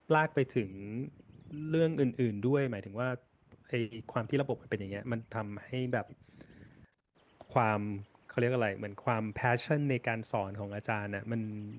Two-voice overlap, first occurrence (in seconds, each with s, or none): none